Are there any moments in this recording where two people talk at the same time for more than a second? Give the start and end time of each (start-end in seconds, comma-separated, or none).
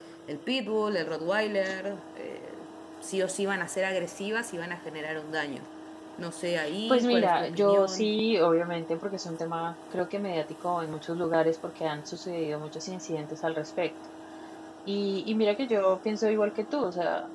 6.9-8.1